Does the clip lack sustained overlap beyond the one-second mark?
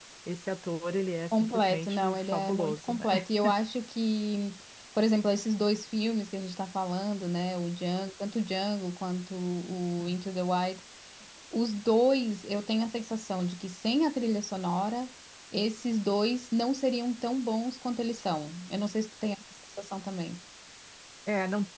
No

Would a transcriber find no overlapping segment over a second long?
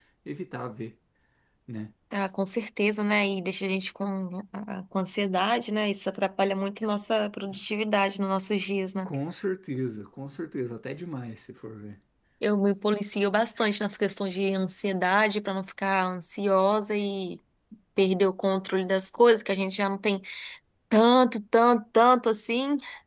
Yes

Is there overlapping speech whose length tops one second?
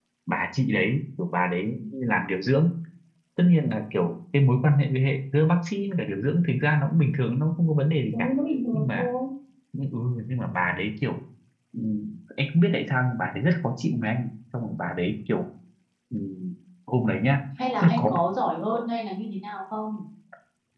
No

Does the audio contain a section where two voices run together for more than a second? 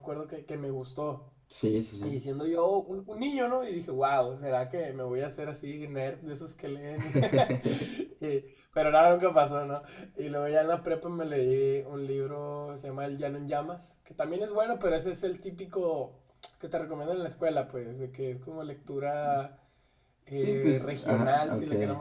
Yes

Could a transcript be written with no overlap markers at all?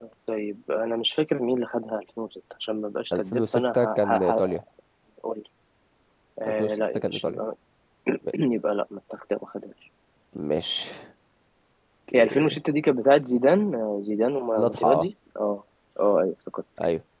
No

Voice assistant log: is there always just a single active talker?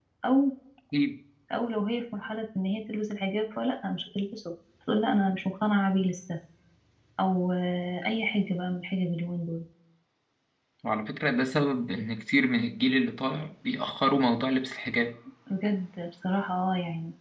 Yes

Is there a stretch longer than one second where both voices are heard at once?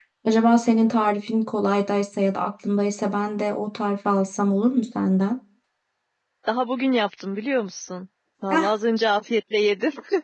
No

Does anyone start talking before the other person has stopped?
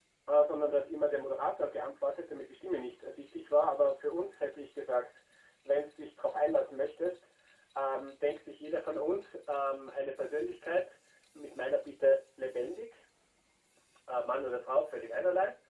No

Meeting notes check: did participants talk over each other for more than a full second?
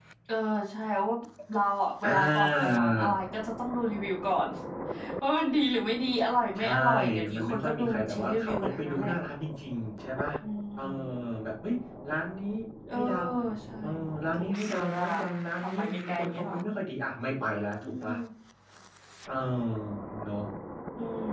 Yes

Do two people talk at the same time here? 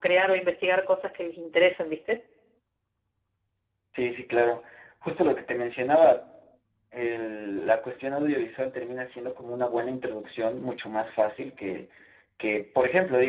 No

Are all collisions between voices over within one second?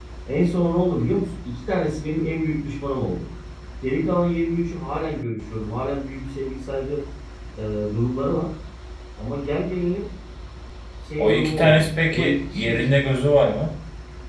No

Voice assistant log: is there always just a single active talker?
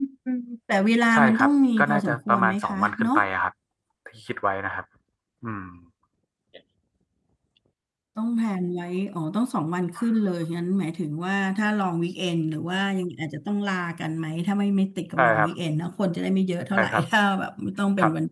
No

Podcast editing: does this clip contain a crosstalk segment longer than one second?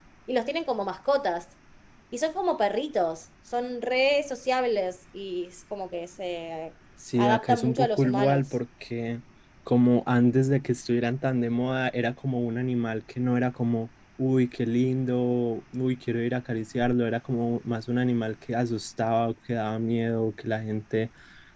Yes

